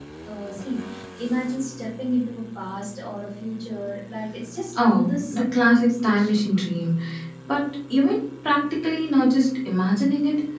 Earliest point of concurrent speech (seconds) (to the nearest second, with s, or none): 5 s